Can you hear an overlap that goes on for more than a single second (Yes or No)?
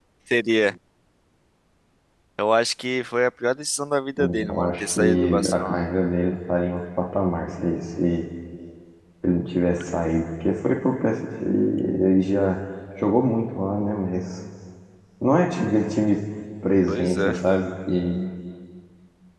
Yes